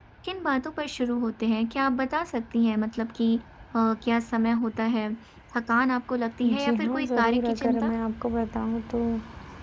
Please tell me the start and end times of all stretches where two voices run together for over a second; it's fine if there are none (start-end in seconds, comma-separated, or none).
6.6-7.9